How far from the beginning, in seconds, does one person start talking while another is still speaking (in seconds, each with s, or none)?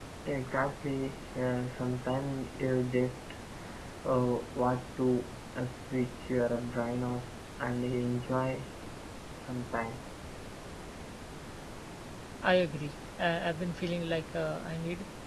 none